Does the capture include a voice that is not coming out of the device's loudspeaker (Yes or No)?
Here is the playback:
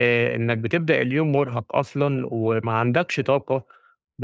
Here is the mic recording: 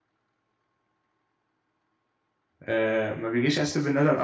Yes